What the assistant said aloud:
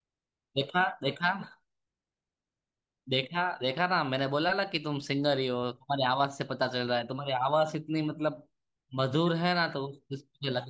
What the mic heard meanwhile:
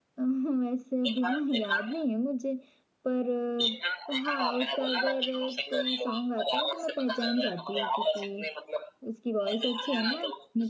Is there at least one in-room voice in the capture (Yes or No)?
Yes